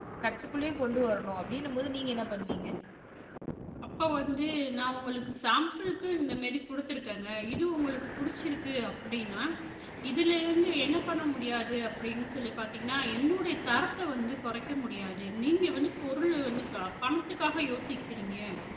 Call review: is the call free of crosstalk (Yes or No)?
Yes